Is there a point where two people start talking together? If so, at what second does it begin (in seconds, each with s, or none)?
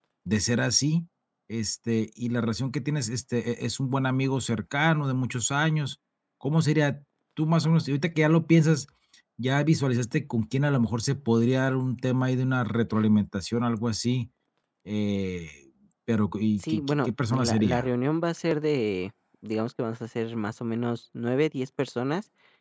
16.6 s